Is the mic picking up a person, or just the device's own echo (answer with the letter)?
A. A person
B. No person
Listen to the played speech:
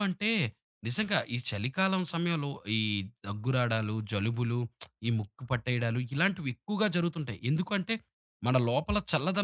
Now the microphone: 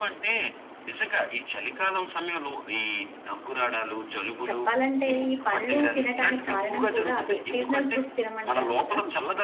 A